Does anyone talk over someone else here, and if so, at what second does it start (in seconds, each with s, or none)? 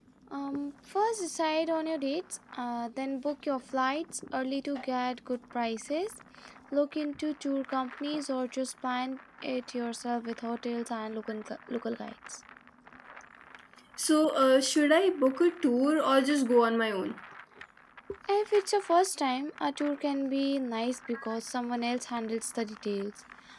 none